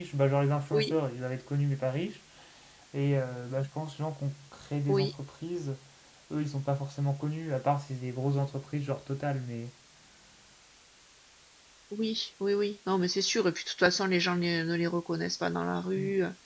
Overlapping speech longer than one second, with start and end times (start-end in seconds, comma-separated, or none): none